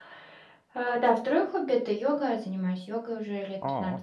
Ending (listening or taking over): listening